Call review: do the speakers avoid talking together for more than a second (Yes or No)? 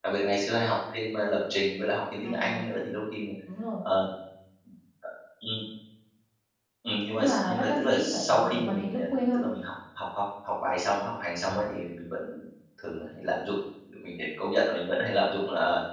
No